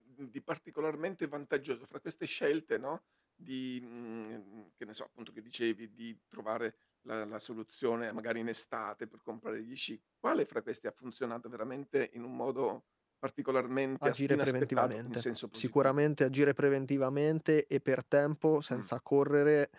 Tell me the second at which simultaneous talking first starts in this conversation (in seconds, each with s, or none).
14.0 s